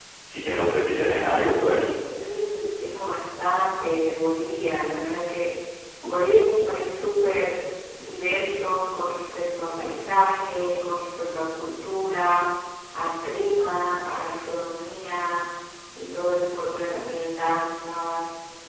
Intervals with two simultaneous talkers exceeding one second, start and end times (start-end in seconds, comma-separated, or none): none